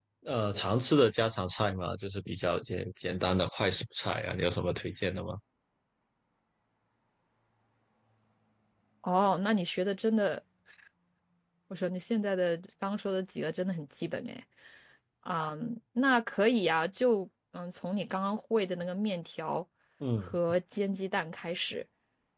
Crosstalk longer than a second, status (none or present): none